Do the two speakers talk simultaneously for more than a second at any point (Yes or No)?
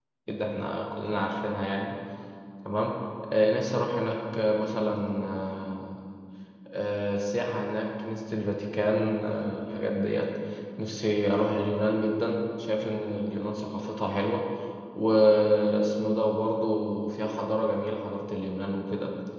No